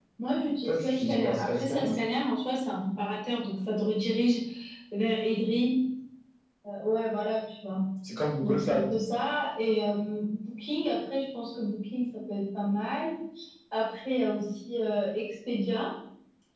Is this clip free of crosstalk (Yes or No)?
No